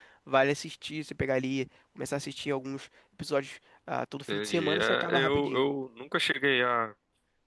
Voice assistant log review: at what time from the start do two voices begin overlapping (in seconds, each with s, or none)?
4.3 s